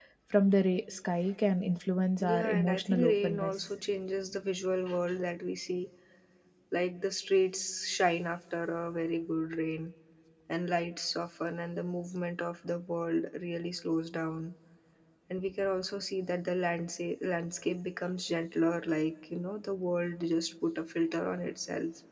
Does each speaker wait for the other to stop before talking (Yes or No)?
No